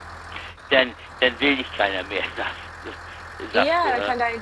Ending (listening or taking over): taking over